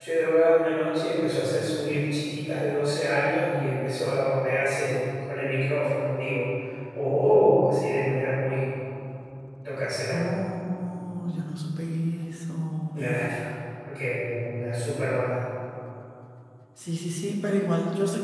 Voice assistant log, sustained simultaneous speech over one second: none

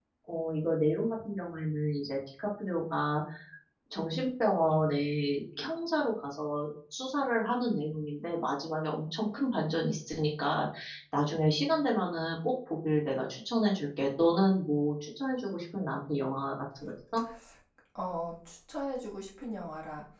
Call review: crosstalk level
none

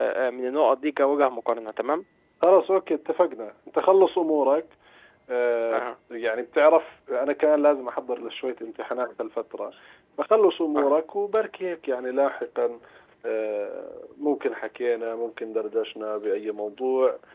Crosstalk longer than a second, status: none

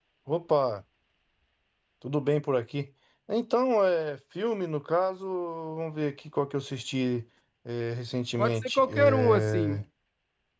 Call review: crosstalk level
present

